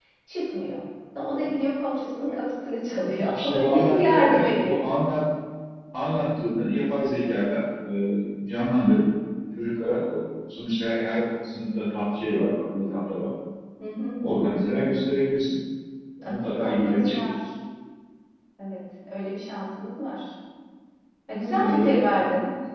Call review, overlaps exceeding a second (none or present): present